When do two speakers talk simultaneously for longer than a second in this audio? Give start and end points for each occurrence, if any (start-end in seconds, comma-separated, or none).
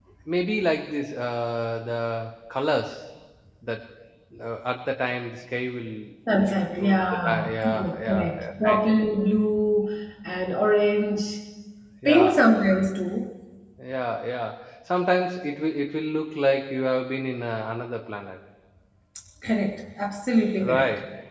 6.5-8.8